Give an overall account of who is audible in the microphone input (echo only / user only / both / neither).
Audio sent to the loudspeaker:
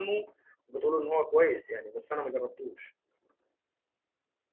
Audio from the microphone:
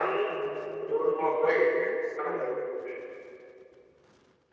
both